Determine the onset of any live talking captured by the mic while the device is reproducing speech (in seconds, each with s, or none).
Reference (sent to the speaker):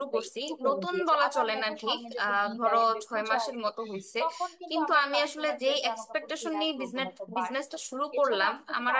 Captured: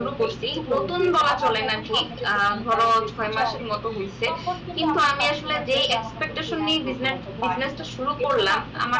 none